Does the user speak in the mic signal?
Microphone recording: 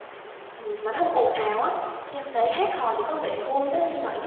Yes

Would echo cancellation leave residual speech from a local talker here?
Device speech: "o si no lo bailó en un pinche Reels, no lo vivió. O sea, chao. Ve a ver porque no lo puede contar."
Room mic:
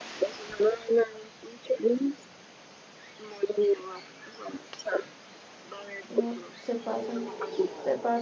Yes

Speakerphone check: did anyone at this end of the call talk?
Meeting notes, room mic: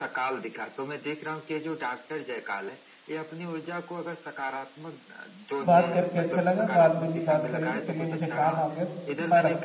Yes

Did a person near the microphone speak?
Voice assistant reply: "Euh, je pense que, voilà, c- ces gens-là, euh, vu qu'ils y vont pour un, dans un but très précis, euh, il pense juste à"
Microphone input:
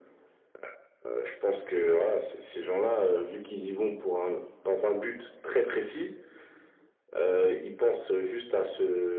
No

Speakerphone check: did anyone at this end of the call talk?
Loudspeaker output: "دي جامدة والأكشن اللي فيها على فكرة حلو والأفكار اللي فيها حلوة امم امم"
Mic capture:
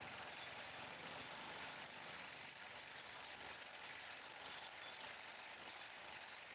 No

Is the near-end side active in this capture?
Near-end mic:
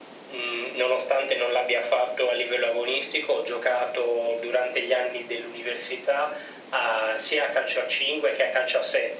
No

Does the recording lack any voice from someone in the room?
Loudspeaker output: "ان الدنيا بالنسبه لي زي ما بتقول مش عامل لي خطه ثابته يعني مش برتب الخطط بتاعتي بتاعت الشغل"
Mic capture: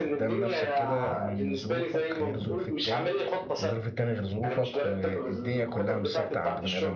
No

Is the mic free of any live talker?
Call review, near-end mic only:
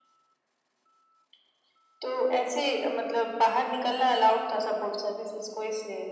Yes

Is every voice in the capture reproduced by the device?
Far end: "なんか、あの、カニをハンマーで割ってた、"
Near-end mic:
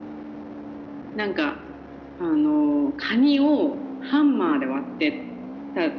Yes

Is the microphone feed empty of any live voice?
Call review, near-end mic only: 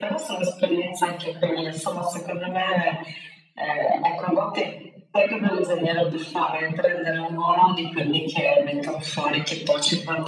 Yes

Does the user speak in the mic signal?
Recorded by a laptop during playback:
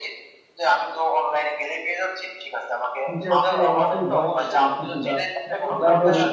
Yes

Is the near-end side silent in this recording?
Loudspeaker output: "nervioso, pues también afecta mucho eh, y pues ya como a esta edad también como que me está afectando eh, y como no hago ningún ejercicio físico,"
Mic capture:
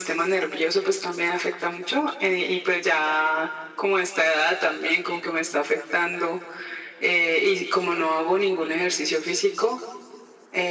Yes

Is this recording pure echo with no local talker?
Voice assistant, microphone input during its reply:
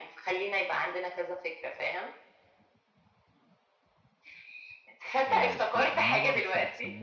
No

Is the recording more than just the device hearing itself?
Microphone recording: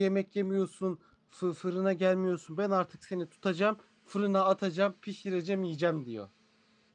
Yes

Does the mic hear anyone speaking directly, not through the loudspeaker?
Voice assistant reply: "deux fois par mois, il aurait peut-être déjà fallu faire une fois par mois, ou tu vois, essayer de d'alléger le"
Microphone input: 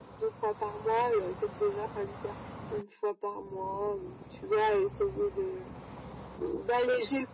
No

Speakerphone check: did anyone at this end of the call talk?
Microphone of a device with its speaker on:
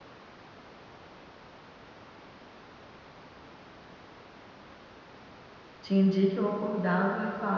Yes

